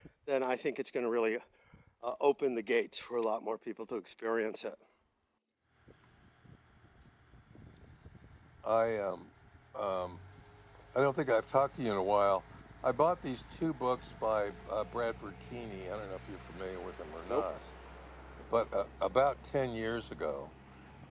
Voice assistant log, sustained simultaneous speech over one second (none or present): none